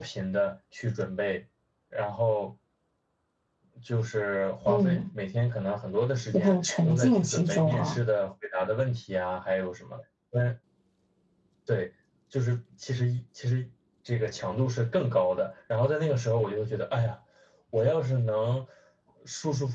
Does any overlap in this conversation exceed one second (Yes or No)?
Yes